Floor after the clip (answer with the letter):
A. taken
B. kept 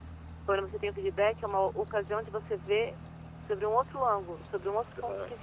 A